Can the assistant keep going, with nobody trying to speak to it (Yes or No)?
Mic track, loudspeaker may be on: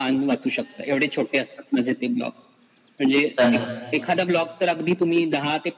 No